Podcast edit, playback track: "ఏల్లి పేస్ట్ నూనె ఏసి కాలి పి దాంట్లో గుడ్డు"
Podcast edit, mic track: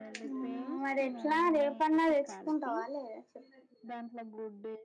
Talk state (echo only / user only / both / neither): both